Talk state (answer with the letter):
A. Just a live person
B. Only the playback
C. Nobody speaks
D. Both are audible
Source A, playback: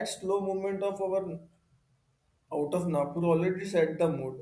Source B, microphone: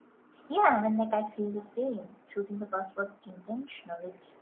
A